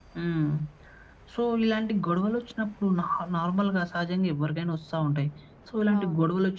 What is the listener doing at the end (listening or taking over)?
listening